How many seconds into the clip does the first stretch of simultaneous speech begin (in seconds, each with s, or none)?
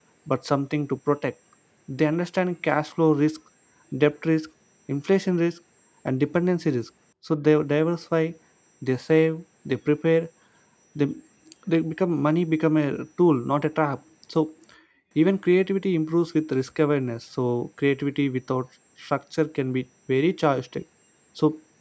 none